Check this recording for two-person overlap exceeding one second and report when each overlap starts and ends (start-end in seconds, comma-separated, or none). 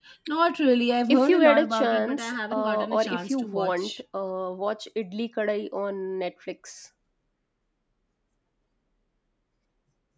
1.1-3.9